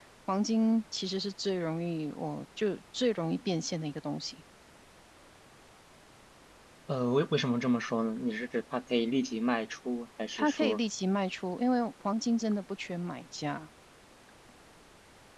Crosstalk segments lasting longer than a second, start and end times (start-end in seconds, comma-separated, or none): none